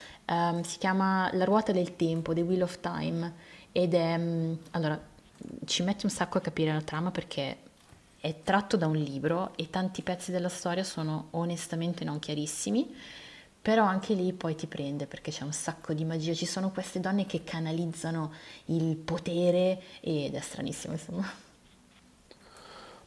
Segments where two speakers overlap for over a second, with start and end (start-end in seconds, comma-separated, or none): none